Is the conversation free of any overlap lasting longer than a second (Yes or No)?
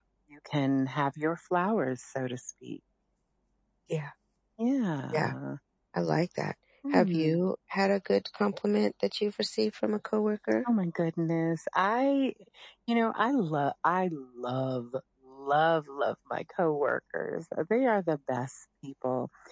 Yes